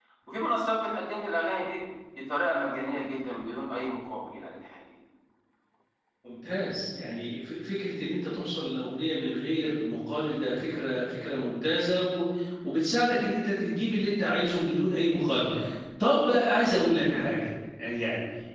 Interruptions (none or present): none